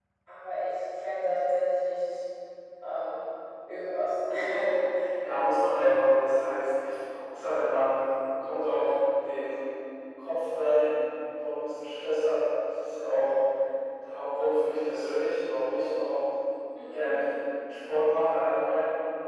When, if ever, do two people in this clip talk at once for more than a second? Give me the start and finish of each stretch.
none

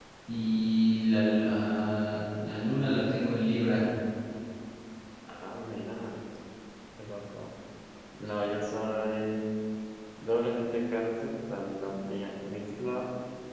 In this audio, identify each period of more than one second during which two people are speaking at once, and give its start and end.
none

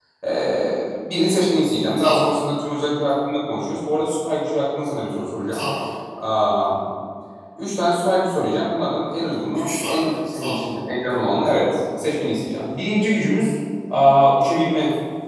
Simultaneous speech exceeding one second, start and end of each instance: 9.5-10.7

